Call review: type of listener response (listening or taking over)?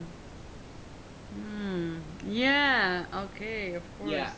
taking over